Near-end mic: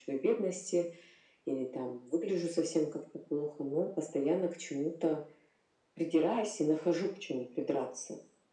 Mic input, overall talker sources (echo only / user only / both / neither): echo only